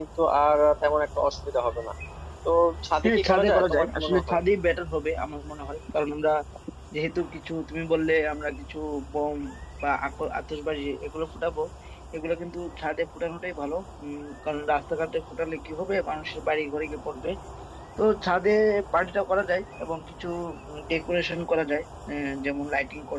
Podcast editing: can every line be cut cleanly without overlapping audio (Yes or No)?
No